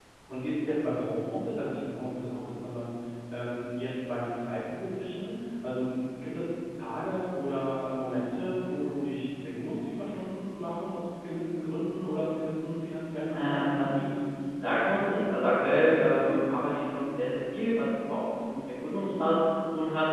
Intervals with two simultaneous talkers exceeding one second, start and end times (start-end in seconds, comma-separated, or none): none